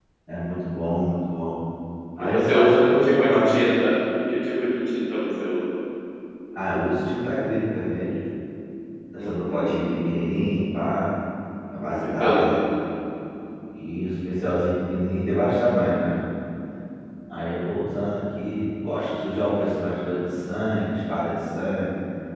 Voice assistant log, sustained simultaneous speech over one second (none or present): present